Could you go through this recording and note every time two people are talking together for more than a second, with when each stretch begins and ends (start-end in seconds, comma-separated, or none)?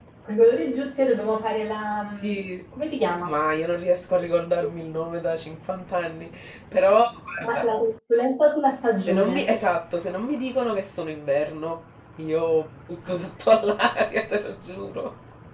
none